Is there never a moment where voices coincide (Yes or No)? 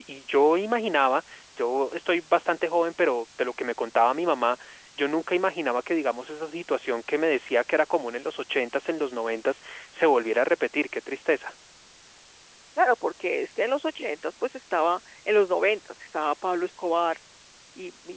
Yes